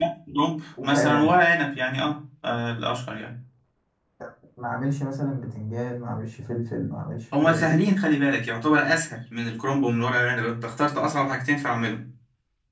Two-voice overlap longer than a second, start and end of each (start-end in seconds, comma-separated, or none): none